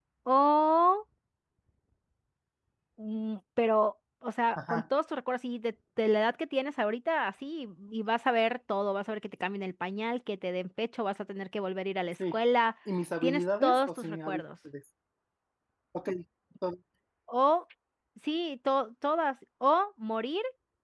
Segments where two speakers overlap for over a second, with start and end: 13.2-14.4

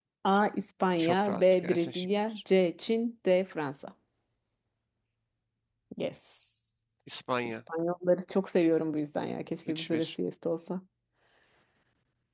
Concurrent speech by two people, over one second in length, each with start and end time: 1.0-2.4

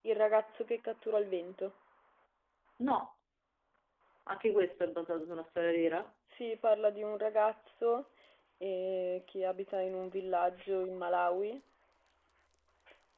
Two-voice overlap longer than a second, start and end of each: none

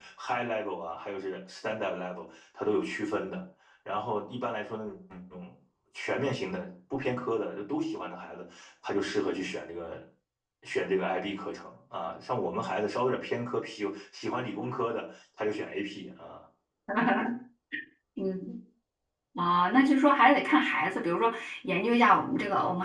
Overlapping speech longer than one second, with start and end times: none

